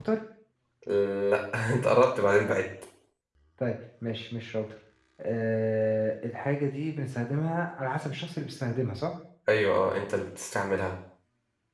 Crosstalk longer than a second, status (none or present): none